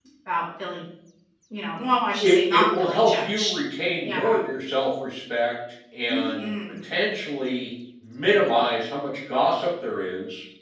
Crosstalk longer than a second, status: present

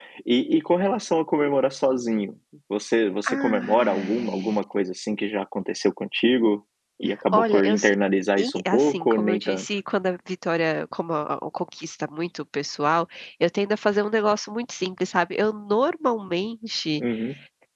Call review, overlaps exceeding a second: present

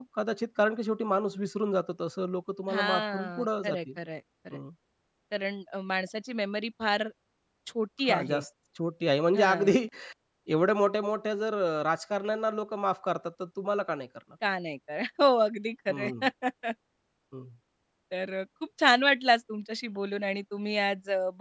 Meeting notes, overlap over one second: present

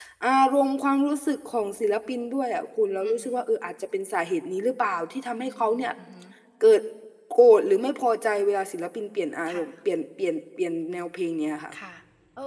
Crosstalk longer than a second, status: none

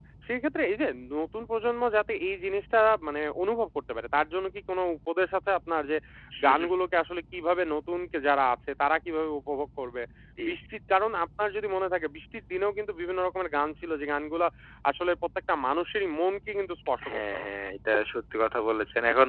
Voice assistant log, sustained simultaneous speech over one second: none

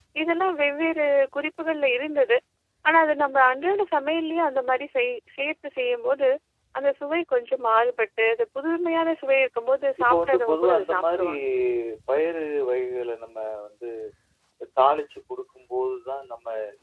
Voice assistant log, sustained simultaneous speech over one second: present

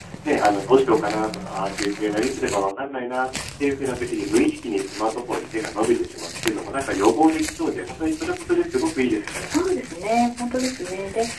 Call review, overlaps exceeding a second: none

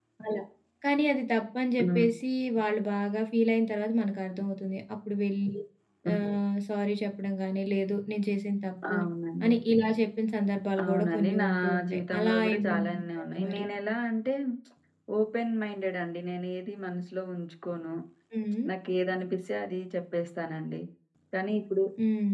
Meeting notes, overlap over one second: present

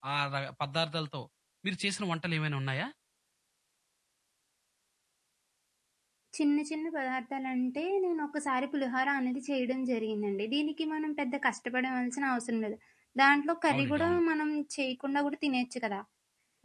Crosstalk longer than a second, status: none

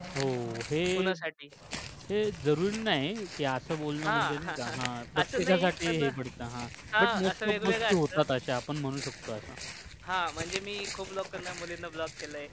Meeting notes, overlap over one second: present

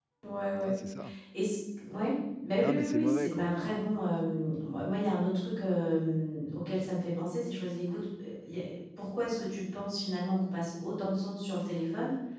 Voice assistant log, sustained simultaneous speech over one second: present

